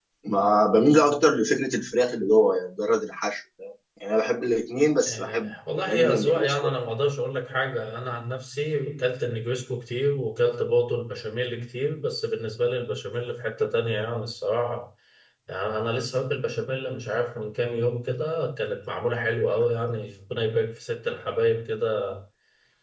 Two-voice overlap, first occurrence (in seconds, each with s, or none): 5.1 s